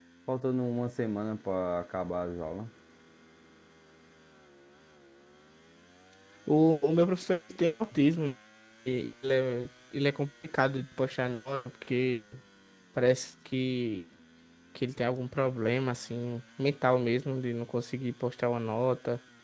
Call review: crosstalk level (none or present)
none